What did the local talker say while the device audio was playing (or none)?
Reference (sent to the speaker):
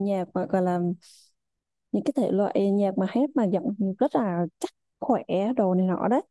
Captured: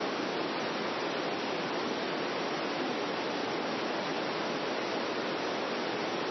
none